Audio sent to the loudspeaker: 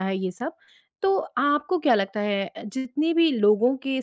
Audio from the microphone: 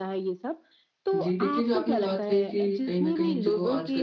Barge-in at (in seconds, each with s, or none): 1.1 s